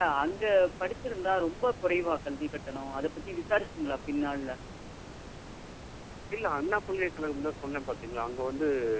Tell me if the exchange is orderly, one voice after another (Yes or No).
Yes